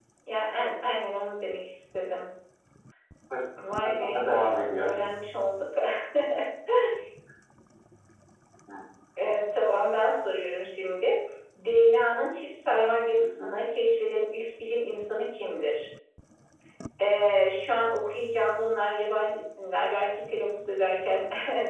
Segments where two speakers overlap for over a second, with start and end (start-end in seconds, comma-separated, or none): 3.7-5.1